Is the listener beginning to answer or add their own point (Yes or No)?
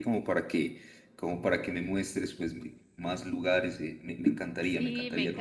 Yes